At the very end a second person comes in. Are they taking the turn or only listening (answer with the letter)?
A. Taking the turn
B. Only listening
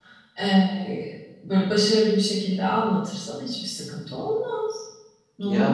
A